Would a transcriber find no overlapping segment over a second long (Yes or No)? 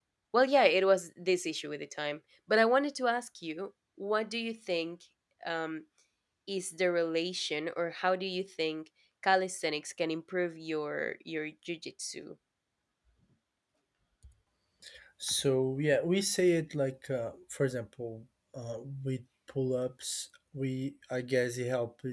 Yes